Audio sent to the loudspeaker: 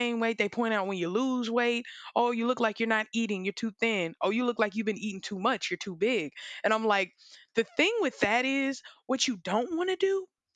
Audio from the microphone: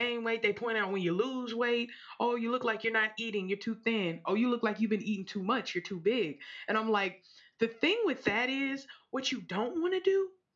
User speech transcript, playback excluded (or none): none